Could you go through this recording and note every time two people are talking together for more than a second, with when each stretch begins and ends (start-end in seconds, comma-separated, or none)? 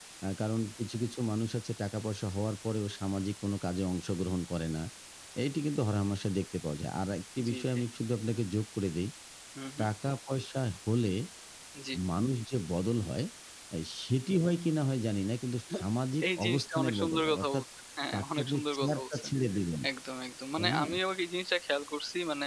16.3-17.6, 18.1-19.3